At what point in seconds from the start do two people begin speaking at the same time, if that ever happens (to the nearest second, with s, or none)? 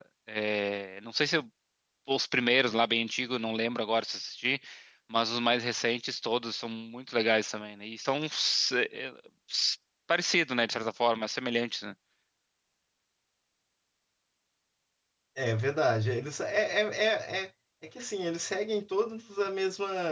none